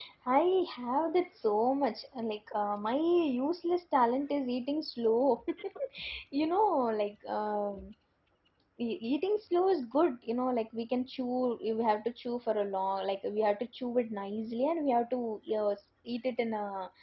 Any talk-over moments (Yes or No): No